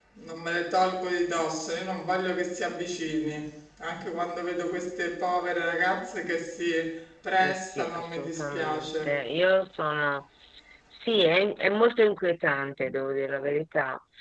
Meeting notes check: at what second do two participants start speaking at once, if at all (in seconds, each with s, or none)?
7.4 s